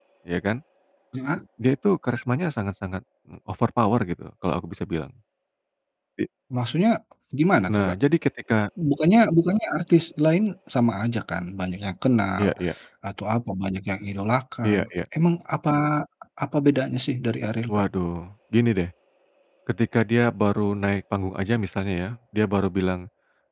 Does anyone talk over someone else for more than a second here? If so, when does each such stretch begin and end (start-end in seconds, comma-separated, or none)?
none